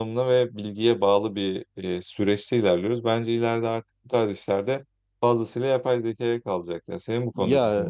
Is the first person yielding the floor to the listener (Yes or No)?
Yes